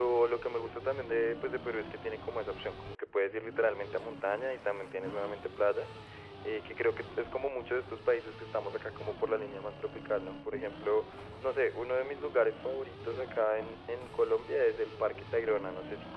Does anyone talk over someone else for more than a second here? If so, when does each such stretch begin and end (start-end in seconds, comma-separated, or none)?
none